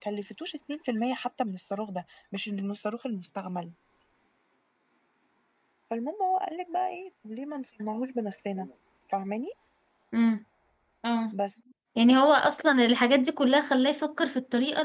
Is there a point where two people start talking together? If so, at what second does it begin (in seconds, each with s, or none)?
none